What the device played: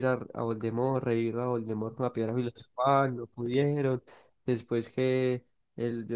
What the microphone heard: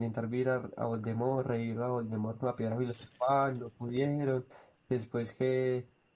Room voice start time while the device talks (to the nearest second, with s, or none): none